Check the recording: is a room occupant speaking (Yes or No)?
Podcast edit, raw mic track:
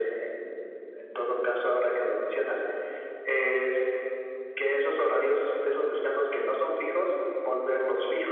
No